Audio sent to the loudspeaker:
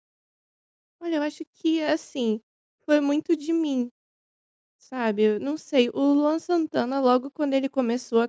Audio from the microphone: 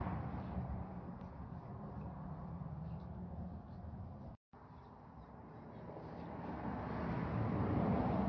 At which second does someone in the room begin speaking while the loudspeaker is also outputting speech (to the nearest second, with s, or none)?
none